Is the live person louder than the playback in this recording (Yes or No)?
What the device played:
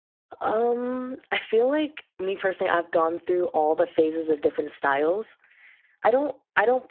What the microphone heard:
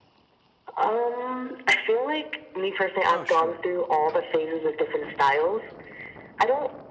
No